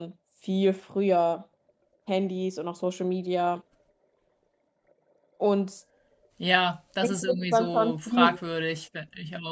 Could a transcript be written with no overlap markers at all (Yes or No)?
No